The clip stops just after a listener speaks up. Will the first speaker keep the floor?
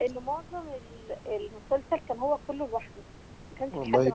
No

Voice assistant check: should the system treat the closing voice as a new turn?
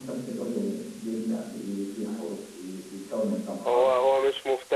Yes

